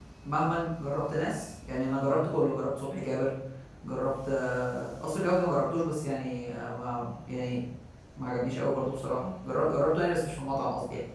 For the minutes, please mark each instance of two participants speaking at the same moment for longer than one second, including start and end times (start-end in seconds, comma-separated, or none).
none